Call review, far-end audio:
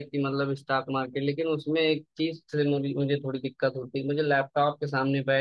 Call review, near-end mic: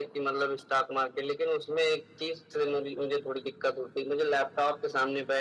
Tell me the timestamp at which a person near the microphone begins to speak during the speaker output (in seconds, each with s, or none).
none